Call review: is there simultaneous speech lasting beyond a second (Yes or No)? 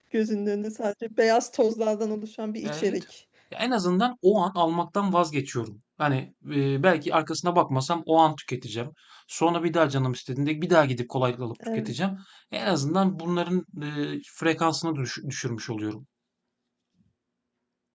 No